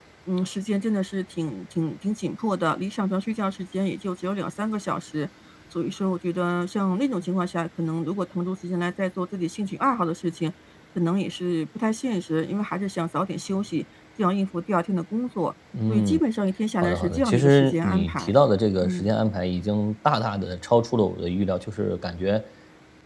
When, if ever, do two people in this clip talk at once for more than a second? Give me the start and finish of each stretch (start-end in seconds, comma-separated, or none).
16.8-18.3